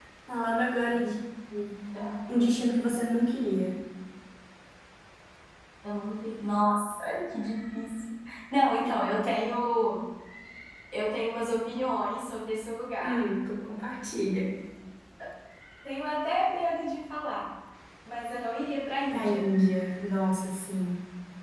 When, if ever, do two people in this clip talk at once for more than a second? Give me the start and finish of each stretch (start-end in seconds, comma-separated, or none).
none